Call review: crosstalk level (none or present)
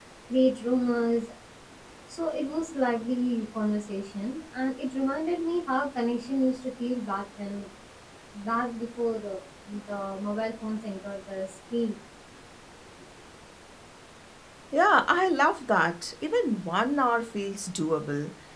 none